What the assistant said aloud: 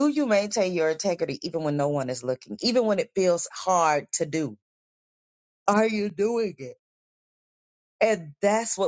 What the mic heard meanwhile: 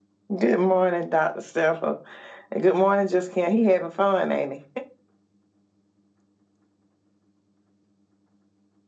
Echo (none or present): none